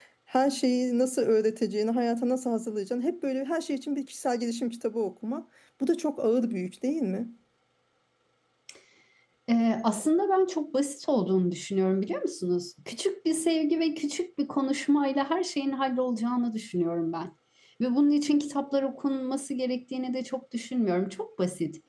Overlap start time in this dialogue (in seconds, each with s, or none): none